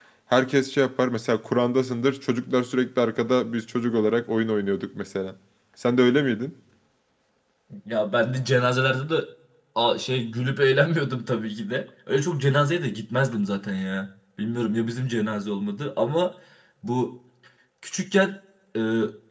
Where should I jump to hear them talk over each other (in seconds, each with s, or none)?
none